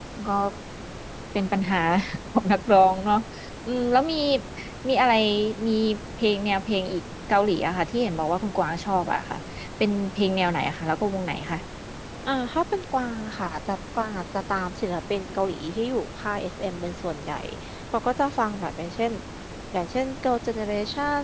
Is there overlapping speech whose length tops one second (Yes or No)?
No